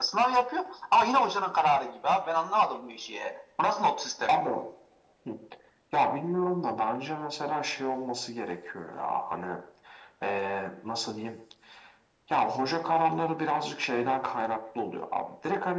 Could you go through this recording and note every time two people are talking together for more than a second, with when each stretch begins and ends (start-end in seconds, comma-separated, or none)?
none